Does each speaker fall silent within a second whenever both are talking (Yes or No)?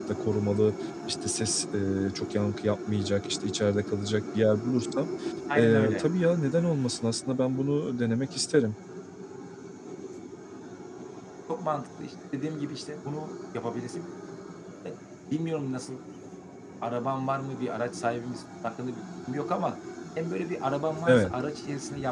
Yes